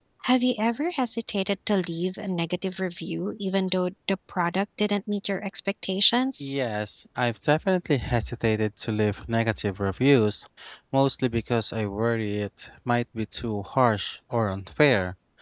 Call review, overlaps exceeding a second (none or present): none